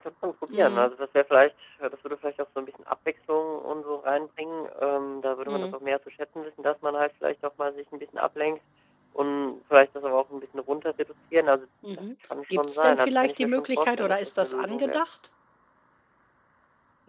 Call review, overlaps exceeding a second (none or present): present